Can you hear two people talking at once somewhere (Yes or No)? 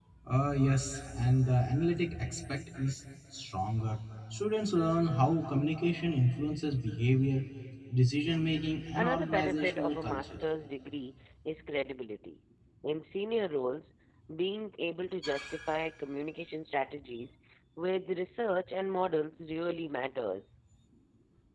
Yes